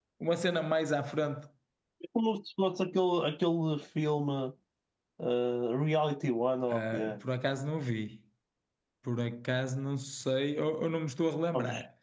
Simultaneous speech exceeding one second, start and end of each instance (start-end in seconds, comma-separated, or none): none